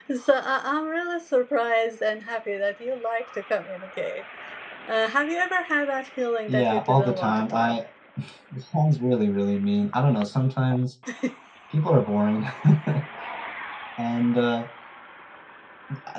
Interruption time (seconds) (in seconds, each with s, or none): 6.5 s